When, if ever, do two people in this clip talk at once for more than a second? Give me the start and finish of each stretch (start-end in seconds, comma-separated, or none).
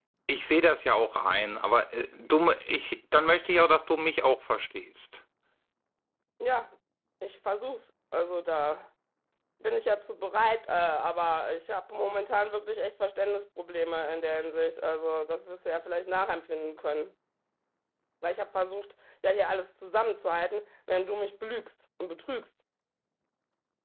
none